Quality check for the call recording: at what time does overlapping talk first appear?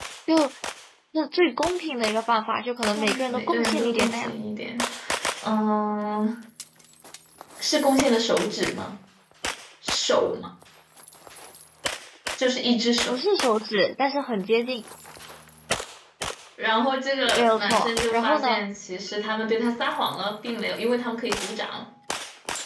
2.9 s

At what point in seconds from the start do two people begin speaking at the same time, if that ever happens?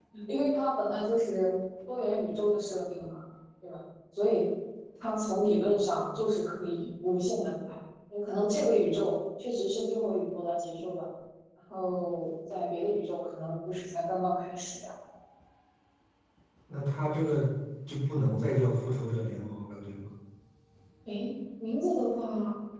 none

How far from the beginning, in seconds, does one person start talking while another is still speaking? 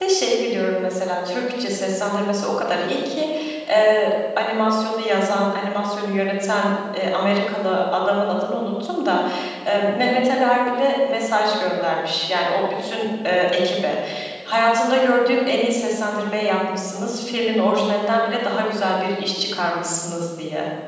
none

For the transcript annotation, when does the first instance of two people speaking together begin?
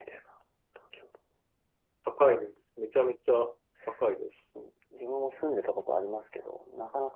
none

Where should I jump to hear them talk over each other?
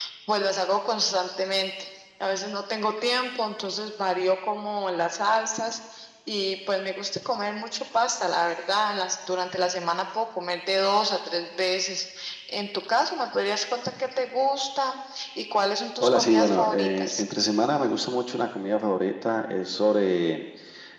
16.0 s

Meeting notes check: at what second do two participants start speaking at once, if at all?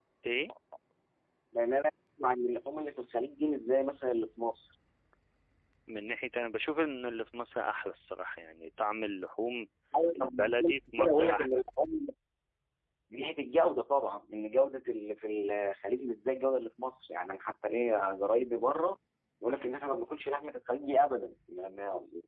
10.2 s

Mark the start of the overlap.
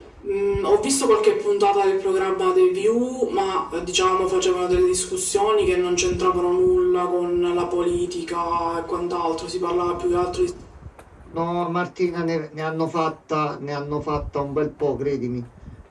none

